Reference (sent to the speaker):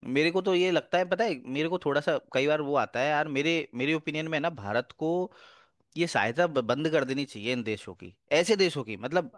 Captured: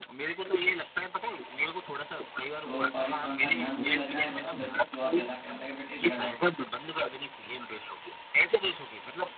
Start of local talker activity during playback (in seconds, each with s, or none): 2.6 s